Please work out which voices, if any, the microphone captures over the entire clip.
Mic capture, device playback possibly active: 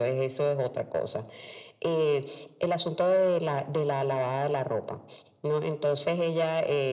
echo only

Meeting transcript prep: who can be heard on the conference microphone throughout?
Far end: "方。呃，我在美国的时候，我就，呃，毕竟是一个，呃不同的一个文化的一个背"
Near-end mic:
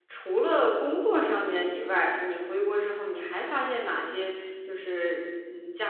user only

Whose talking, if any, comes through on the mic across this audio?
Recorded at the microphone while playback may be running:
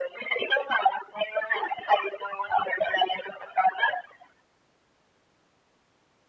echo only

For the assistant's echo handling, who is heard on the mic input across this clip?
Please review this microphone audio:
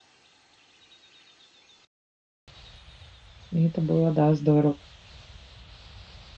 user only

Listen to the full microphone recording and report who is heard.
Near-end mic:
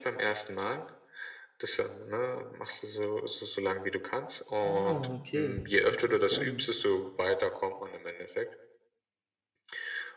both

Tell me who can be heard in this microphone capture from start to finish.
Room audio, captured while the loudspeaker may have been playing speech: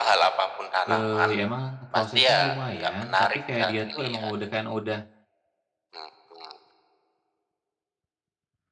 both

